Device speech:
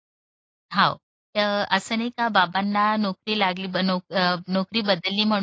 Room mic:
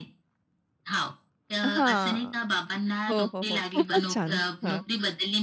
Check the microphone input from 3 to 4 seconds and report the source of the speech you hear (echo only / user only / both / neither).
both